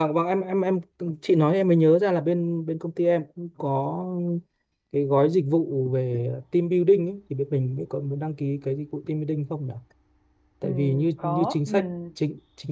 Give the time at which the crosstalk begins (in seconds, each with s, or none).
10.6 s